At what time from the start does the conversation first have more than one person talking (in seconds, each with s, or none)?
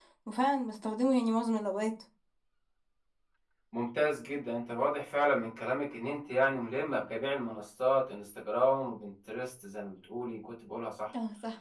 none